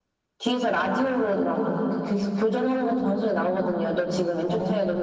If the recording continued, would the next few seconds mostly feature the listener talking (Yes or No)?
No